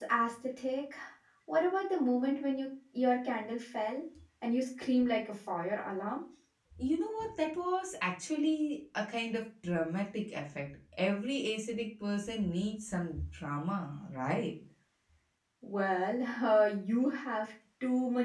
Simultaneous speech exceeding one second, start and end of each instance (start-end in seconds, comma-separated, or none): none